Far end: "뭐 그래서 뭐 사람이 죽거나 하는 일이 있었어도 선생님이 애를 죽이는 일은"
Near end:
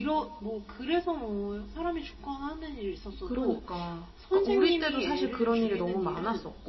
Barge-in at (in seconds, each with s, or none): 3.2 s